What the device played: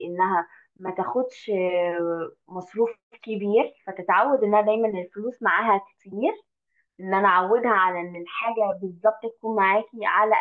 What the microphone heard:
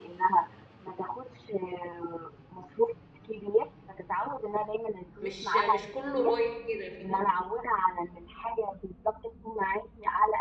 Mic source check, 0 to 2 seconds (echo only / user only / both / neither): echo only